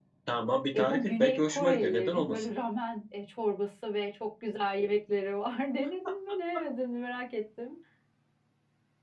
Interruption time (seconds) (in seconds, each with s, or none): 0.7 s